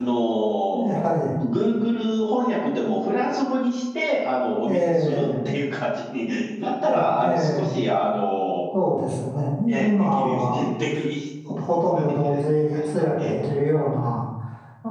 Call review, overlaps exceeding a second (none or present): present